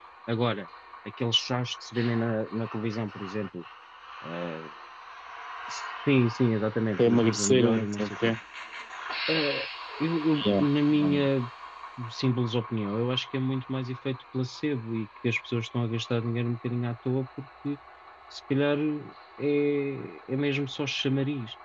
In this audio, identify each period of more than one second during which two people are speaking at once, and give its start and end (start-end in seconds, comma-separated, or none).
7.0-8.3